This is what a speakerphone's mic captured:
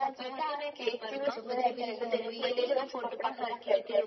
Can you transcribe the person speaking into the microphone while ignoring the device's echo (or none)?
તો પછી પેલી ભહેરવી કે